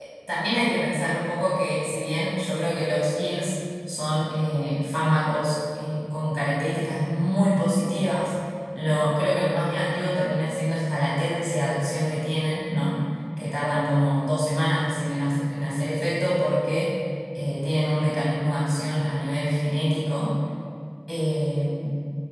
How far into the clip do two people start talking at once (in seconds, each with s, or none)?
none